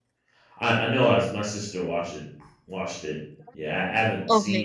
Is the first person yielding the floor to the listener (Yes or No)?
No